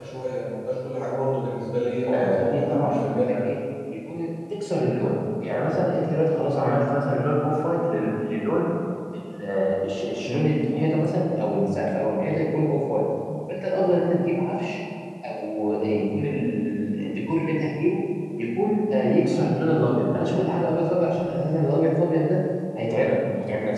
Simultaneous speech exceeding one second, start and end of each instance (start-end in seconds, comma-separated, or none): 2.1-3.3